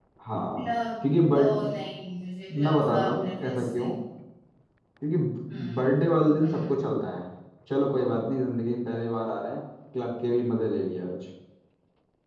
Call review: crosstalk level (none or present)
present